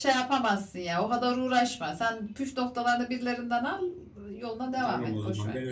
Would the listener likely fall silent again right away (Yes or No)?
No